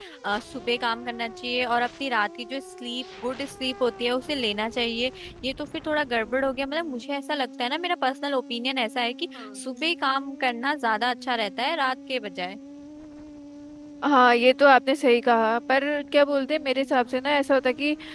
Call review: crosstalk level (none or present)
none